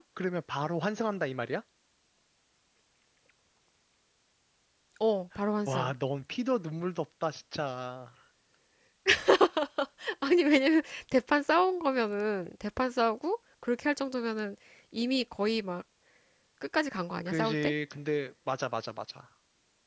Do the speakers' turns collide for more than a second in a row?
No

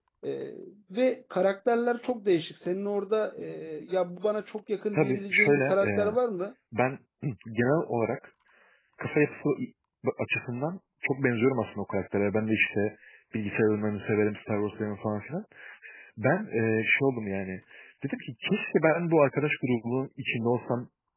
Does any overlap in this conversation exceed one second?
Yes, from 4.9 s

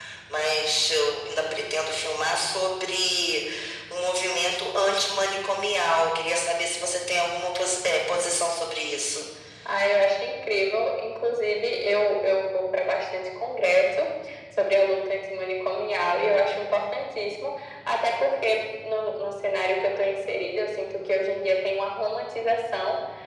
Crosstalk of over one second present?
No

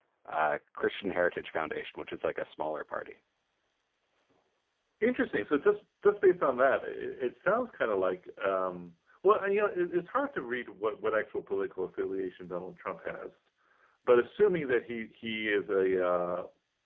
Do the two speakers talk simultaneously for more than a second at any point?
No

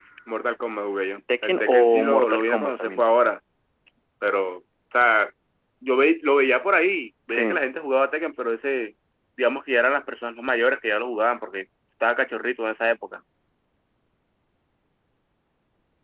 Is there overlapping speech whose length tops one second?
Yes, from 1.4 s

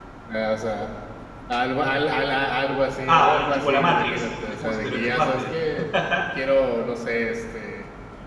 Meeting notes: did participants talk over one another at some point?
Yes, from 3.1 s

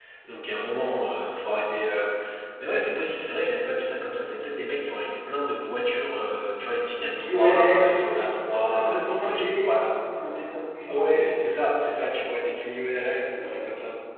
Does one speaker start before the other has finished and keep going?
Yes, from 7.0 s

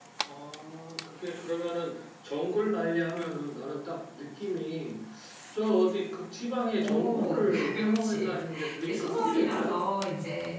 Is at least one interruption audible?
Yes, from 6.8 s

